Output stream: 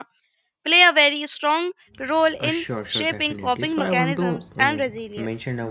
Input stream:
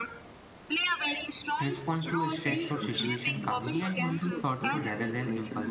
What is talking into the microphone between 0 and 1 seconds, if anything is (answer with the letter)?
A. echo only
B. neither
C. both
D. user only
A